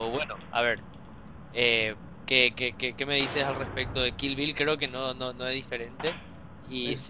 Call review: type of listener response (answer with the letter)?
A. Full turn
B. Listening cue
B